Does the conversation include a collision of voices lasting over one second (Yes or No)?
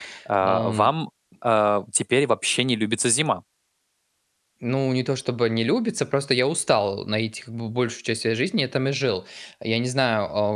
No